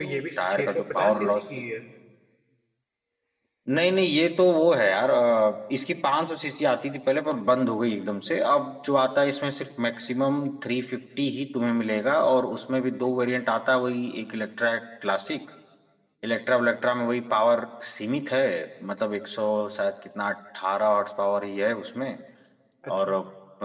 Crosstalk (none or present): present